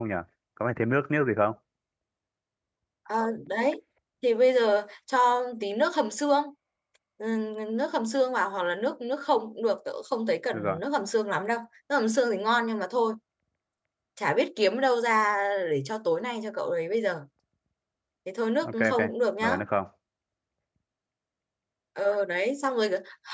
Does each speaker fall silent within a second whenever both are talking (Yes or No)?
Yes